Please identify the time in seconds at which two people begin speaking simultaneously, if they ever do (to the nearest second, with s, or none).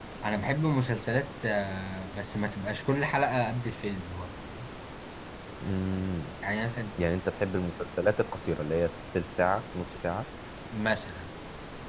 none